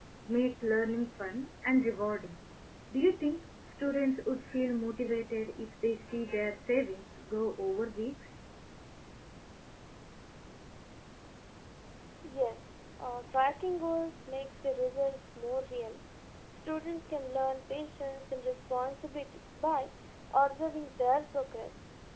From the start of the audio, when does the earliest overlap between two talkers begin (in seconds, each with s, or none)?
none